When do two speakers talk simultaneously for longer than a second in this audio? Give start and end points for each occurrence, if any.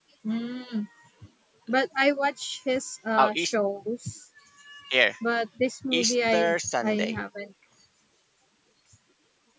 5.9-7.2

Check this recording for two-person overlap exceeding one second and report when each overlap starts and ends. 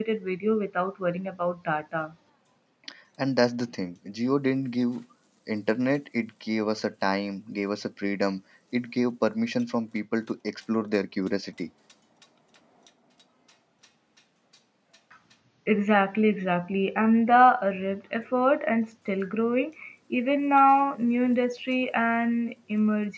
none

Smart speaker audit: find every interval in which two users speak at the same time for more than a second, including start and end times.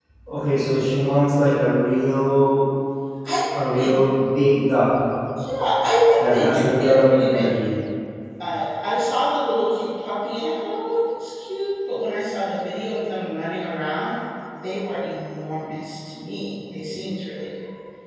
6.2-7.7

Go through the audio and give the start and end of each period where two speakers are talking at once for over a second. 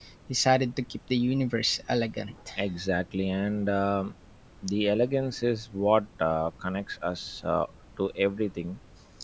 none

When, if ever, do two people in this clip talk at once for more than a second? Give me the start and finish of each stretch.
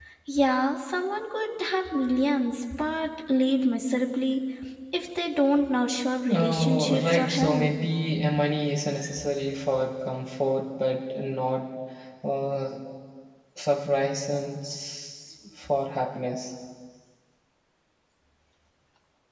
6.3-7.7

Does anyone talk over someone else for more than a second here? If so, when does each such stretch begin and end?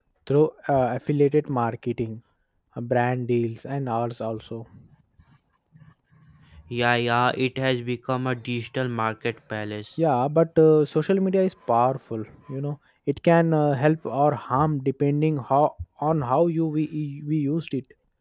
none

